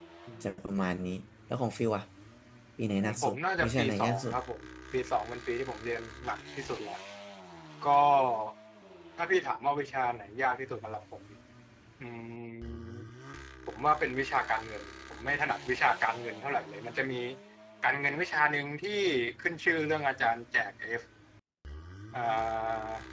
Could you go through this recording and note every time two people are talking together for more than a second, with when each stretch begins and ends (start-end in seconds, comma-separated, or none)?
3.0-4.3